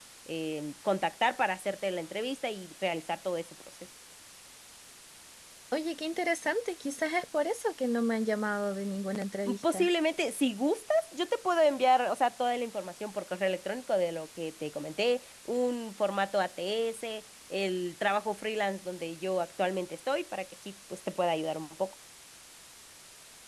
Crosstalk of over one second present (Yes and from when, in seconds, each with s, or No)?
No